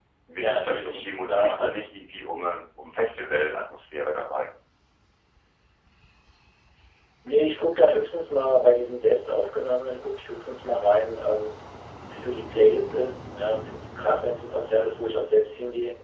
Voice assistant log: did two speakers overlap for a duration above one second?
Yes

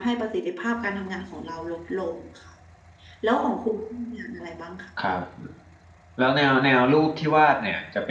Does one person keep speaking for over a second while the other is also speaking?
No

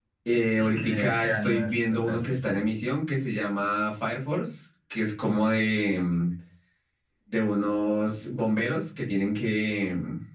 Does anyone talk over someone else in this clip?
Yes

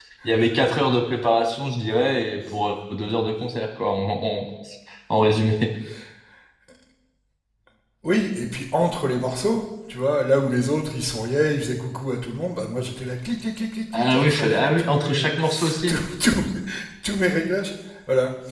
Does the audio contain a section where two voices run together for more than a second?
Yes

